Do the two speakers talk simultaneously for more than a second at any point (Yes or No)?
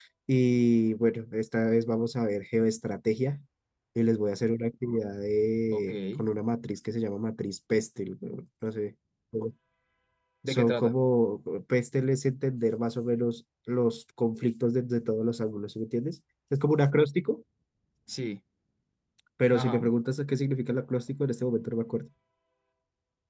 No